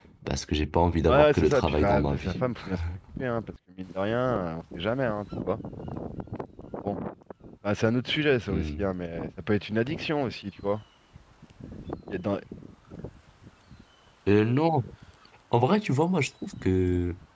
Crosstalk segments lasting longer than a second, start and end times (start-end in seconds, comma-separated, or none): 1.1-2.3